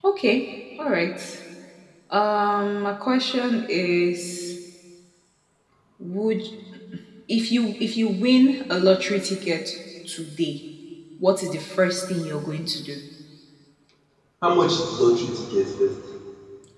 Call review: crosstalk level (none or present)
none